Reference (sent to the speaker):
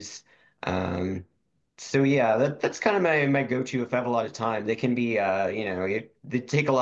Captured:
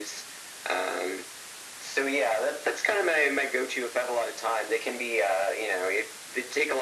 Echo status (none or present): present